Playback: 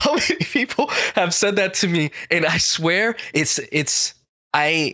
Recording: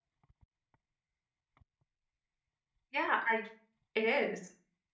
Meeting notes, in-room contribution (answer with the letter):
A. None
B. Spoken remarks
B